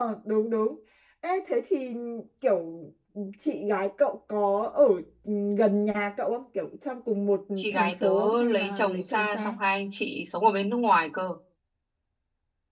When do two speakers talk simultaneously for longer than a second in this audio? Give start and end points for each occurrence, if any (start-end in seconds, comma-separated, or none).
7.6-9.6